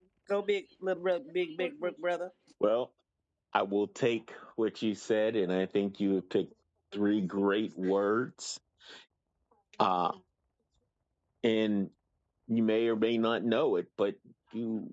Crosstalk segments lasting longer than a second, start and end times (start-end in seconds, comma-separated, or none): none